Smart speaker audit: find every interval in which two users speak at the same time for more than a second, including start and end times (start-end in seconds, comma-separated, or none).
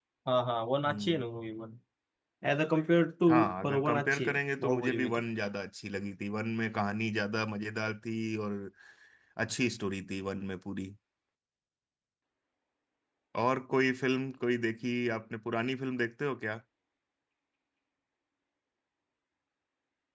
3.3-5.2